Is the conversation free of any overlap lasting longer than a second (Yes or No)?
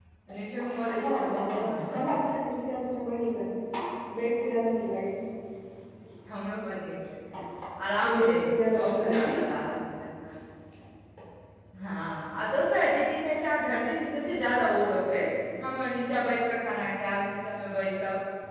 No